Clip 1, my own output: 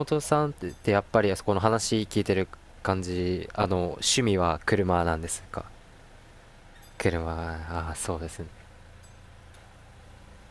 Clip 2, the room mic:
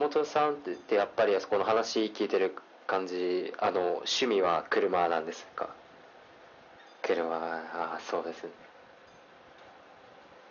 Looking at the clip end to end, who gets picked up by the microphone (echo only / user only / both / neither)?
echo only